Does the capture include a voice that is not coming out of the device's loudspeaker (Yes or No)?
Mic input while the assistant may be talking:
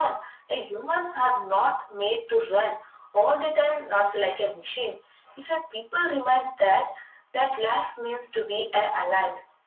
No